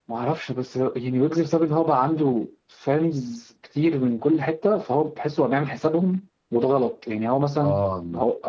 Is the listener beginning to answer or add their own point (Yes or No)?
No